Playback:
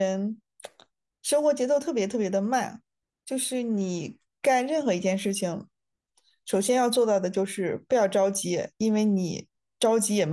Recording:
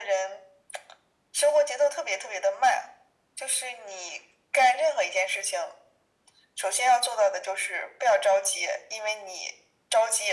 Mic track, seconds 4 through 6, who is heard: echo only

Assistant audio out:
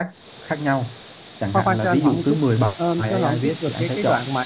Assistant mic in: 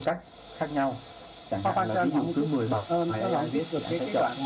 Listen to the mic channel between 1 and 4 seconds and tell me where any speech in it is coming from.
echo only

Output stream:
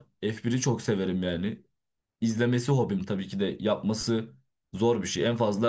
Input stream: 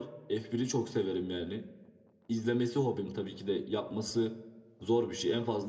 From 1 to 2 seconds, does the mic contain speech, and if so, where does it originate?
echo only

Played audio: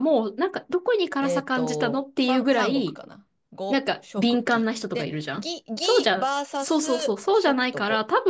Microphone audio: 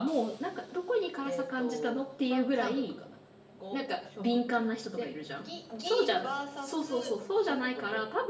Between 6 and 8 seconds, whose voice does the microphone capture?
echo only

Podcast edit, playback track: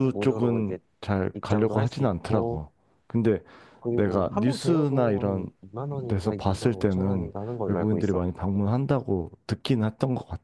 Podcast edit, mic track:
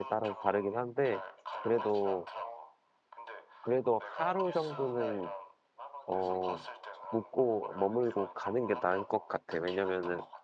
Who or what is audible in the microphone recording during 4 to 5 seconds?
both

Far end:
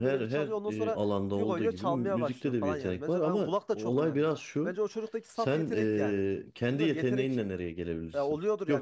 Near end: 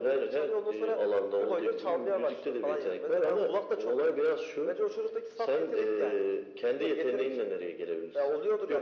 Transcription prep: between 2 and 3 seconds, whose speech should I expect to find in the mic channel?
echo only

